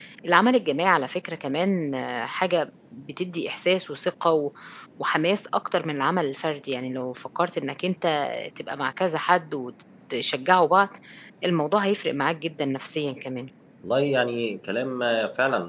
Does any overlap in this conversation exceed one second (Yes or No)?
No